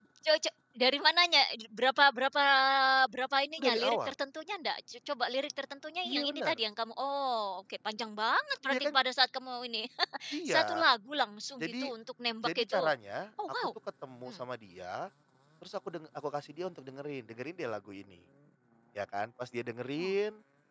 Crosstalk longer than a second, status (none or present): none